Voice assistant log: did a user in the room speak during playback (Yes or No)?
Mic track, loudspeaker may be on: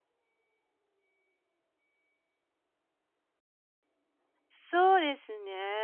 Yes